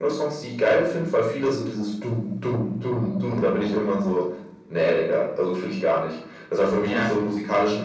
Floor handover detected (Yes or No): No